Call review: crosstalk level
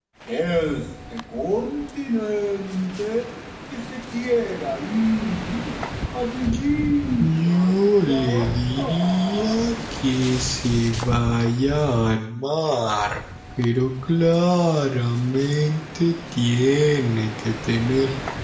present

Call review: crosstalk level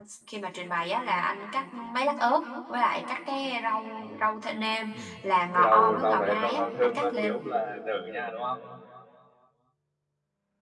present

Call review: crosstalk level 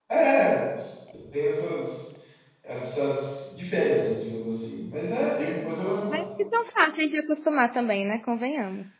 none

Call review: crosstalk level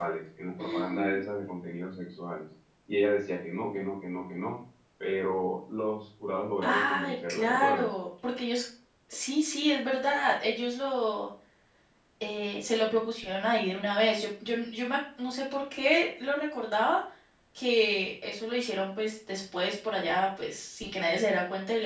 present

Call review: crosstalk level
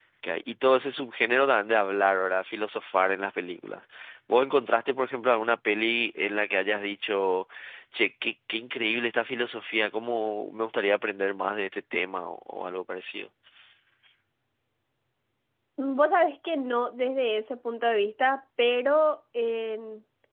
none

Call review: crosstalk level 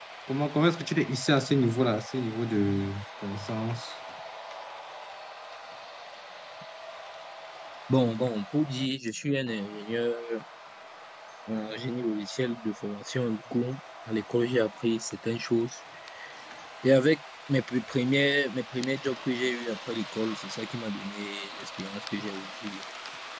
none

